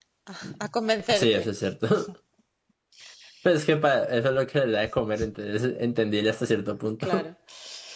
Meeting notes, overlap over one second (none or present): none